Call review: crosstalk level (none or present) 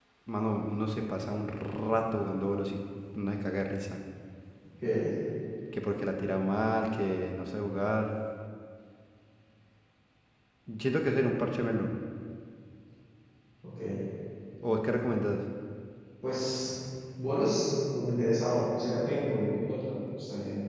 none